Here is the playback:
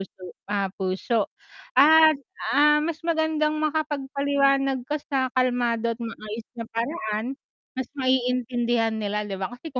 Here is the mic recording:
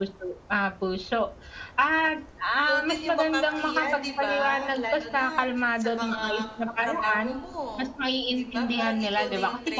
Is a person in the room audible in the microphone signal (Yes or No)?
Yes